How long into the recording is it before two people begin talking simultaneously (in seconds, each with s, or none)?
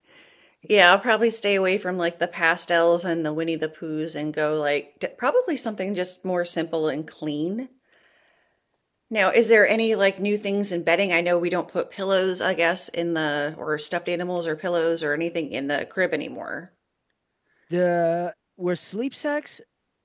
none